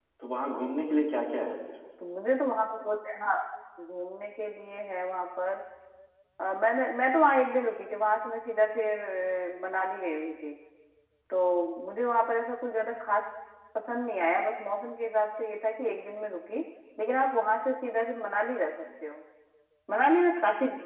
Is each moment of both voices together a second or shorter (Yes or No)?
Yes